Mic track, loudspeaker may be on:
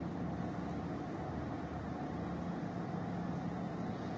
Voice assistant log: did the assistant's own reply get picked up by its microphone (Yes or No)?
No